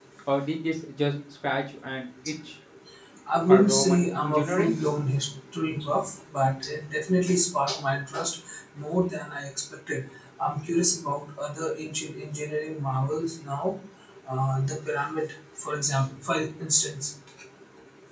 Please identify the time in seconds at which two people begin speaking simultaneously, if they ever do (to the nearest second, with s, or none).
3 s